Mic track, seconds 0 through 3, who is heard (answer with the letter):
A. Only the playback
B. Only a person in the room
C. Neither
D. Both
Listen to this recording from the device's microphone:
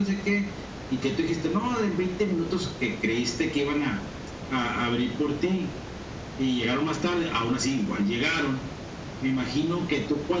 A